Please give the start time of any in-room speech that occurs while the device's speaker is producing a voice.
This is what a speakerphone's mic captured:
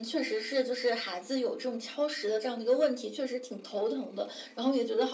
none

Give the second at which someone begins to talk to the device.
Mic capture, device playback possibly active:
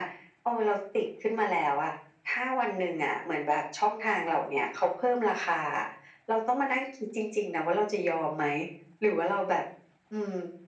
none

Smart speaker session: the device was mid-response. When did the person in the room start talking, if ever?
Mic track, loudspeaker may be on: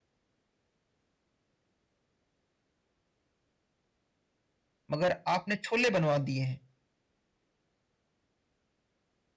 5 s

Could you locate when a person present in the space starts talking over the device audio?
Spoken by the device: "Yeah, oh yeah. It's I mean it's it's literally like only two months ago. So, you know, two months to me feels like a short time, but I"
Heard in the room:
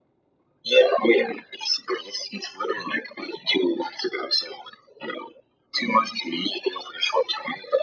none

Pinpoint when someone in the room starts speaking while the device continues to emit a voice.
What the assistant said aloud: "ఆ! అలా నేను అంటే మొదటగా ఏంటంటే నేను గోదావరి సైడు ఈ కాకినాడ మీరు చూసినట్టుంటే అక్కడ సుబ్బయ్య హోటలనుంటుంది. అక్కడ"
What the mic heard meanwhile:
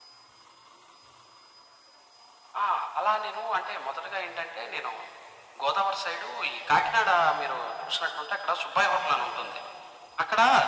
none

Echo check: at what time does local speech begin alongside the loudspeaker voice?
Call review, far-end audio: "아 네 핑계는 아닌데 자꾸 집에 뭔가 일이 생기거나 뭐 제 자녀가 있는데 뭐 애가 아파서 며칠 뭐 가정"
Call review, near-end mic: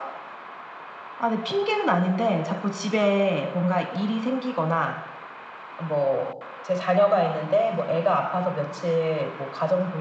none

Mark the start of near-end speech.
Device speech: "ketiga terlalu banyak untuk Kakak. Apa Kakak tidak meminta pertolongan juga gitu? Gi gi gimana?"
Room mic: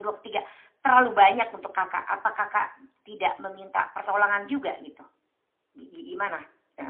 none

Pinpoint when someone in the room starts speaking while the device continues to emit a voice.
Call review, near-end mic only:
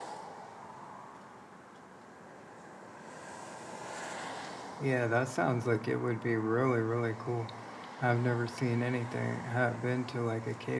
5 s

